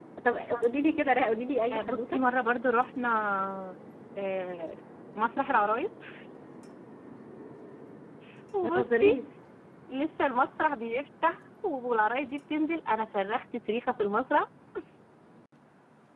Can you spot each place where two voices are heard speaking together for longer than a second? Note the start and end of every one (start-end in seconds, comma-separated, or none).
none